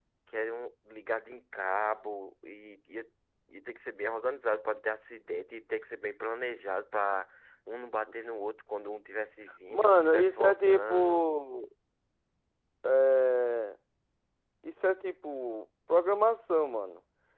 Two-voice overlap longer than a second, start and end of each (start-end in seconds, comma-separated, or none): 9.7-11.3